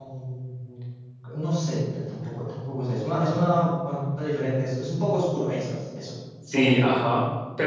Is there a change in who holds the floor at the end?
Yes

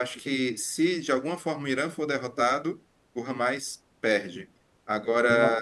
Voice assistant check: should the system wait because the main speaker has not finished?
Yes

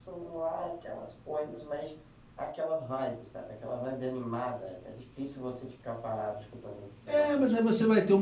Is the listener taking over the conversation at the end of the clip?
Yes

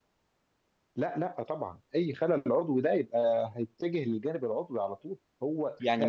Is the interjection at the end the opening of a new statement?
Yes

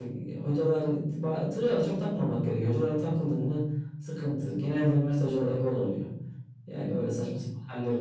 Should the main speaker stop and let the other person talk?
No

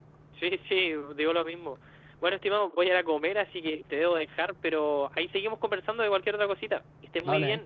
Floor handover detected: Yes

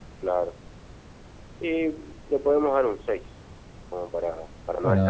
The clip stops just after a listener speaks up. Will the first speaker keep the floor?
No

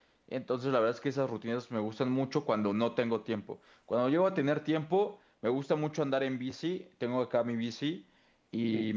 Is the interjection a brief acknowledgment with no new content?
Yes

